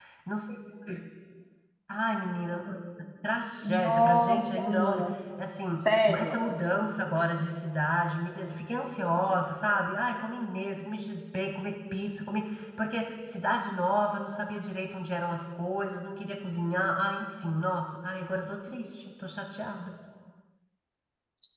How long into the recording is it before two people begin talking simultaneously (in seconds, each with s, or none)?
3.6 s